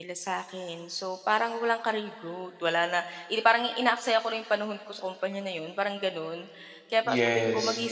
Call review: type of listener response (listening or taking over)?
listening